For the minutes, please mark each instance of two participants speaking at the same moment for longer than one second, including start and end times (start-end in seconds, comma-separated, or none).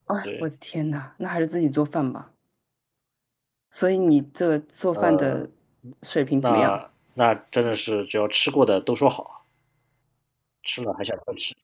none